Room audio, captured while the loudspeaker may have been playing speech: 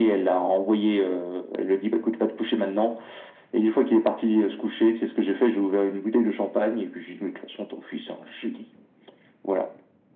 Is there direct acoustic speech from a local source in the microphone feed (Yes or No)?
No